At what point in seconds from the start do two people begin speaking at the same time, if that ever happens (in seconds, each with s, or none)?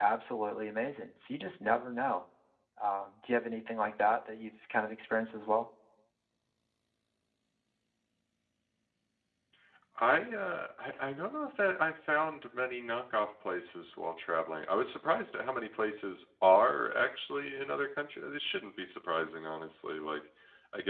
none